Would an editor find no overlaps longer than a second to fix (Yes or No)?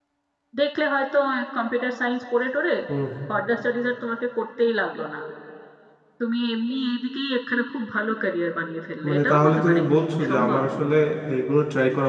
No